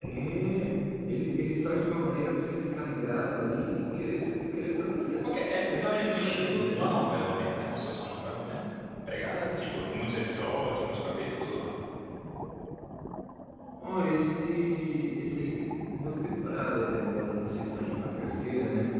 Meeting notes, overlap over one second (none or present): present